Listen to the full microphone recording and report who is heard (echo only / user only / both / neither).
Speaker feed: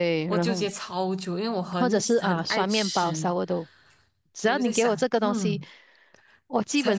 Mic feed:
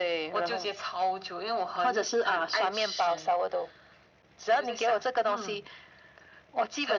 echo only